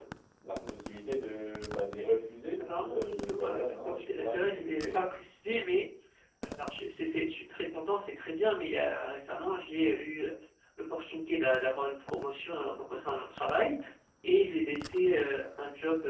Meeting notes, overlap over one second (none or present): present